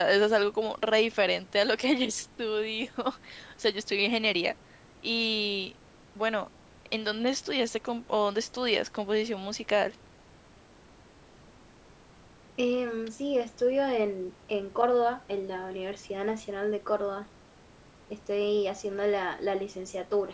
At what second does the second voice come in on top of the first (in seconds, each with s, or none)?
none